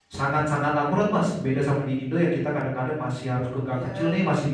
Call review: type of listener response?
listening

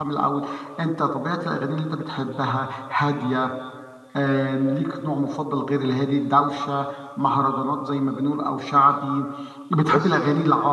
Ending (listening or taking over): listening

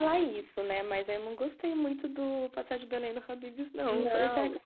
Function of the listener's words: taking over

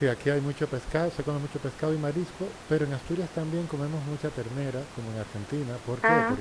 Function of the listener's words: listening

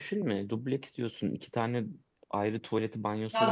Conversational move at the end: taking over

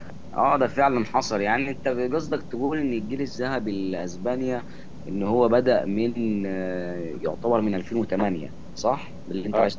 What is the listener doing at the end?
taking over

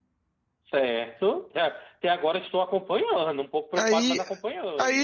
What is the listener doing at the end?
taking over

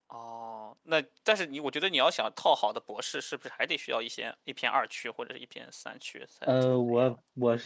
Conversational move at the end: taking over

